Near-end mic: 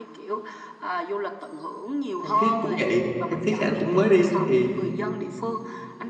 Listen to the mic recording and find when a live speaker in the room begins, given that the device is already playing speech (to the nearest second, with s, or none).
2 s